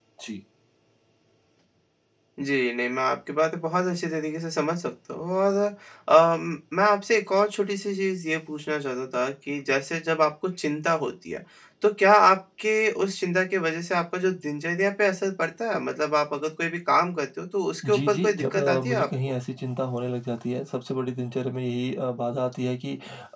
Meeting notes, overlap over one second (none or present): present